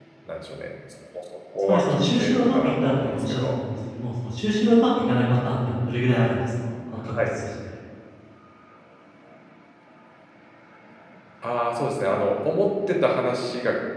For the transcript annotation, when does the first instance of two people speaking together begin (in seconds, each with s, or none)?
1.7 s